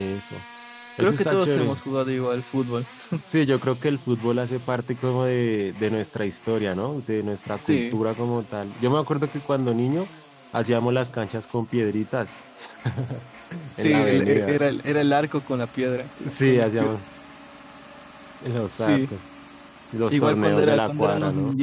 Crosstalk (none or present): present